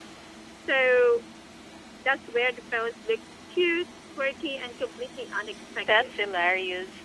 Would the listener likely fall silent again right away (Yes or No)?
No